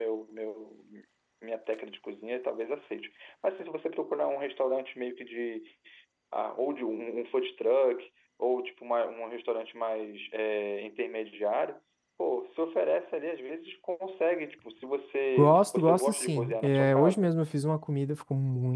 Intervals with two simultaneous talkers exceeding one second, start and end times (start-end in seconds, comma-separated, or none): 15.4-17.3